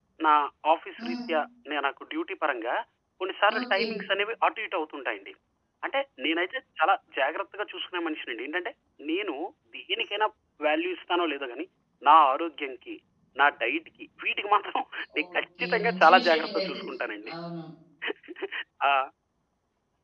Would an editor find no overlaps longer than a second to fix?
No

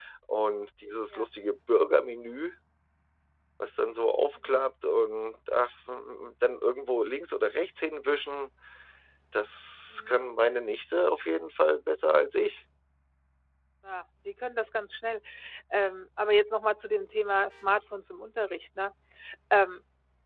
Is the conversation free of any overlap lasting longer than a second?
Yes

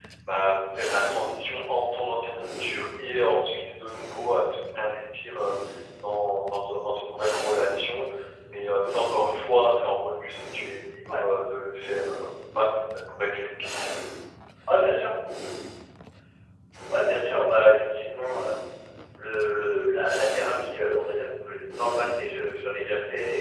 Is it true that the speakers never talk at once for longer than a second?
Yes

